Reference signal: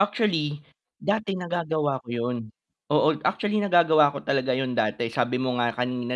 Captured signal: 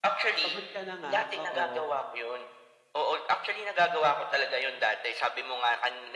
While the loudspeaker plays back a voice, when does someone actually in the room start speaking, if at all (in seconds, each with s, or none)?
0.4 s